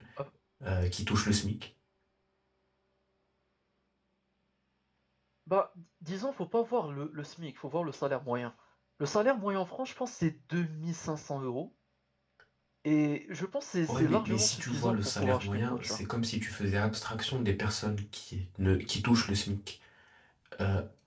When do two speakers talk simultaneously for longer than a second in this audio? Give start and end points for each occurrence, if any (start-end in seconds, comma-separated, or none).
13.9-16.0